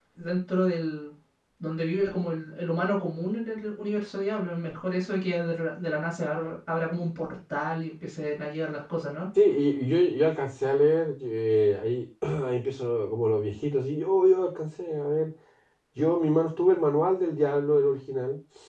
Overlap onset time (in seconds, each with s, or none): none